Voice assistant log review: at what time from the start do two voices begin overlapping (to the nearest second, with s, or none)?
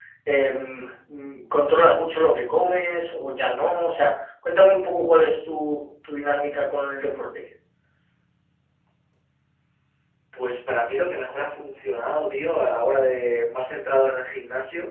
none